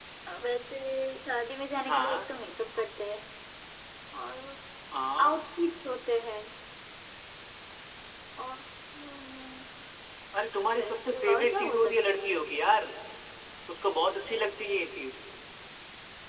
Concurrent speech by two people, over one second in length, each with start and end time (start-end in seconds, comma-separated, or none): 10.8-12.3